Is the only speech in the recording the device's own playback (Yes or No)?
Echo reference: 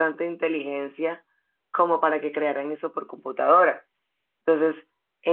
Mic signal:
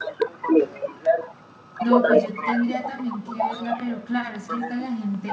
No